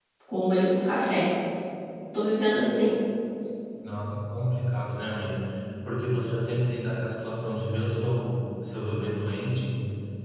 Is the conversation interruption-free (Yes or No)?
Yes